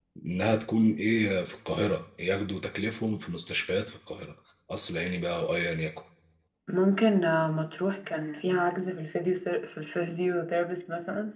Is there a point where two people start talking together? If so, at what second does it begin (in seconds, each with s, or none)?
none